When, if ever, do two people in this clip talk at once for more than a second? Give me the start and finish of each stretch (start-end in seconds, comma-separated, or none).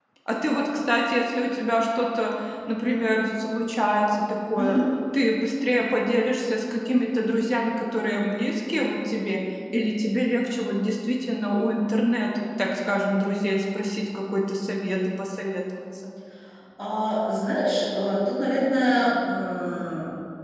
none